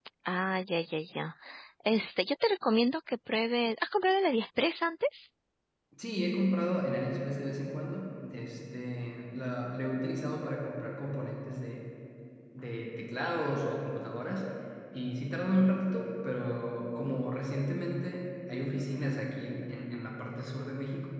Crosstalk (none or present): none